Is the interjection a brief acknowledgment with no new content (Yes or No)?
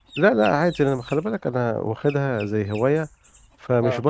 Yes